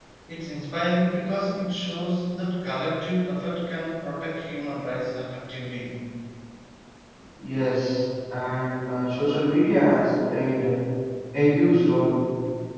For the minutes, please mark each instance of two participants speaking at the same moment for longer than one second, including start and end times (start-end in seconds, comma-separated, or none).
none